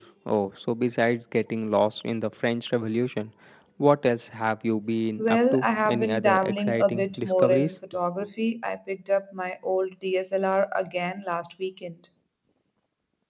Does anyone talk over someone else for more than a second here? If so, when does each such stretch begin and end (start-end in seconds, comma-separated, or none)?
5.2-7.8